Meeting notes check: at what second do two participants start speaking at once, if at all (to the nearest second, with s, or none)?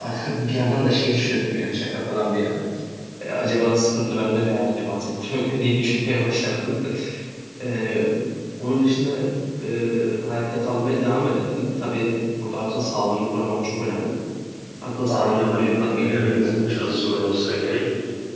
15 s